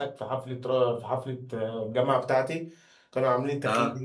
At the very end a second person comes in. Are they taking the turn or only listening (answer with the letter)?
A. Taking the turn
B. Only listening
B